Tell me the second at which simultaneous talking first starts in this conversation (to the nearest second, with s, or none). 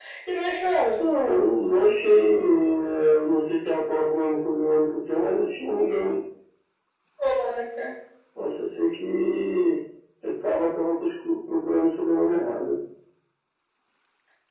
none